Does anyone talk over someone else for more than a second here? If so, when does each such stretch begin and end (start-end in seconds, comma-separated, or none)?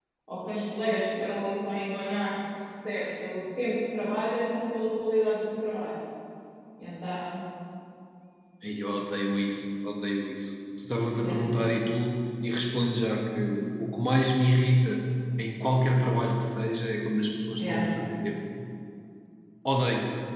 none